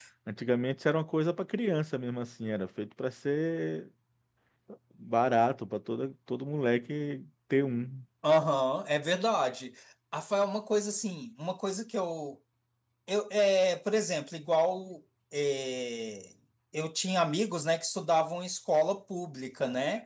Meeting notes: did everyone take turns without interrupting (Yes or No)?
Yes